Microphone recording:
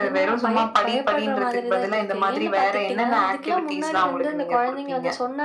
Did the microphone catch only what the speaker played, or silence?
Yes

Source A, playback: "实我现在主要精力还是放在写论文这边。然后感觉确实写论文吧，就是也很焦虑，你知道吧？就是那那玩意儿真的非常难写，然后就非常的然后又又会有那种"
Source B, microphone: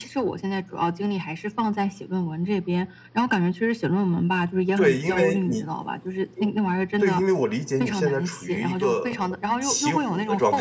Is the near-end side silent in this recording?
No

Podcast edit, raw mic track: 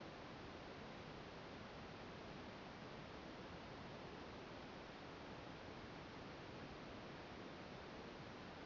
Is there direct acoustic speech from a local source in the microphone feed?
No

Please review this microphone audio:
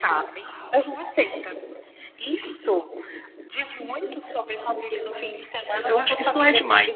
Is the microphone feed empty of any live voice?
No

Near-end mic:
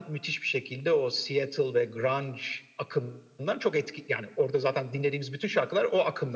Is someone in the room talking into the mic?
No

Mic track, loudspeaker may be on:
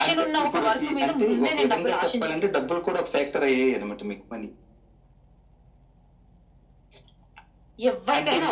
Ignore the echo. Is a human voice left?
No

